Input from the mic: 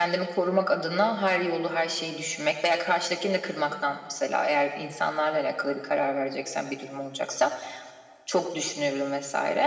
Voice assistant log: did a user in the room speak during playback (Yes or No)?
No